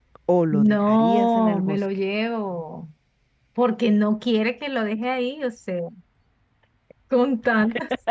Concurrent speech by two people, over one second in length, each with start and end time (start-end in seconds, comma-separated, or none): 0.5-1.8